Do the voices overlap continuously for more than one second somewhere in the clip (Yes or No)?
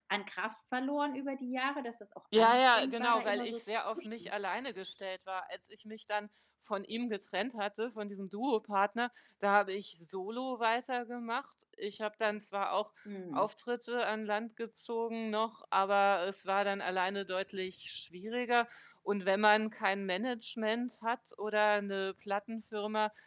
Yes